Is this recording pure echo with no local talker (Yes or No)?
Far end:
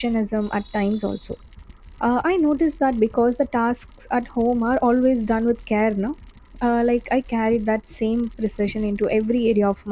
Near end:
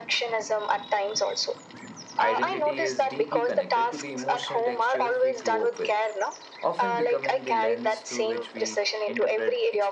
No